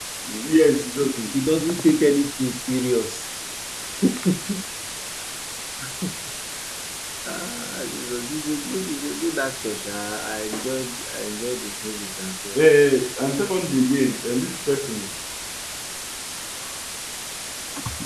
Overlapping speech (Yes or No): No